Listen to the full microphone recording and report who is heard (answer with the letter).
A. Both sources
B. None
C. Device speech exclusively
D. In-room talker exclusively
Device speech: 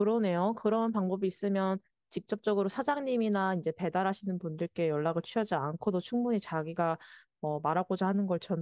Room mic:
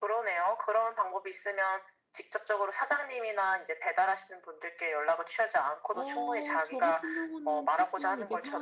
A